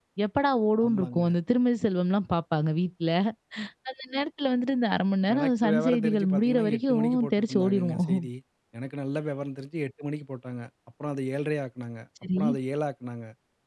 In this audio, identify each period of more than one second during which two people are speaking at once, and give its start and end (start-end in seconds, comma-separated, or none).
5.3-8.2